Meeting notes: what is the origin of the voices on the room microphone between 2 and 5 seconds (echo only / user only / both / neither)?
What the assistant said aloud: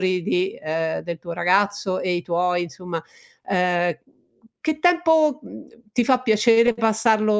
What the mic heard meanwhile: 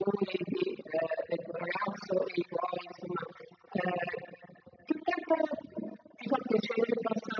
echo only